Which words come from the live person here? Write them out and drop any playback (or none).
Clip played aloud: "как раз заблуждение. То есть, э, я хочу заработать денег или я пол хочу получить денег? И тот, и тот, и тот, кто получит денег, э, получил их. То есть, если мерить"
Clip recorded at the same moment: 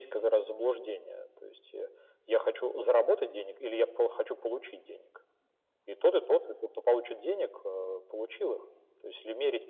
none